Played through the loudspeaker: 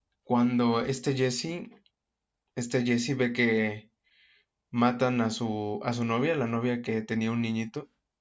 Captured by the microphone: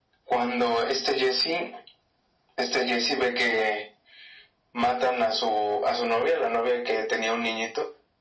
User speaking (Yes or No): No